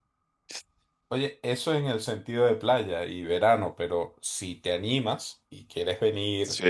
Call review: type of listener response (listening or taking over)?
listening